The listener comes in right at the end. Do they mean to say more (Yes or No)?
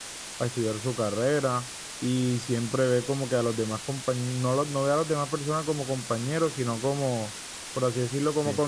No